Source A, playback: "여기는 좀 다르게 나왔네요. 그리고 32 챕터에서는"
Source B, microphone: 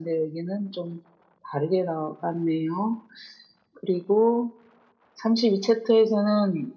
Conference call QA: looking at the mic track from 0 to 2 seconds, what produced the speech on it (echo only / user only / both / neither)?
echo only